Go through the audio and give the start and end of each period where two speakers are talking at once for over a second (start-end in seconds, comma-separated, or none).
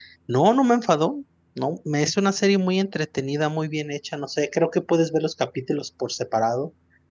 none